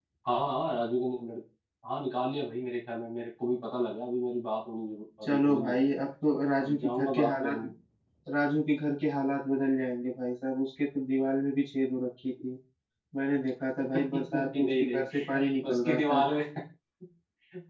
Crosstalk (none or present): present